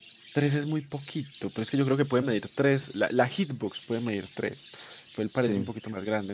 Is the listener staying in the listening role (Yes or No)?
Yes